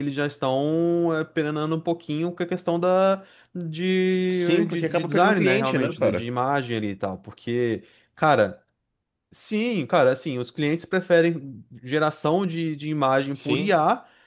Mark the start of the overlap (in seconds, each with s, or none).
4.3 s